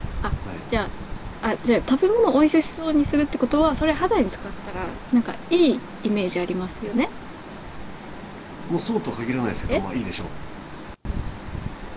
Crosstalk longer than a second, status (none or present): none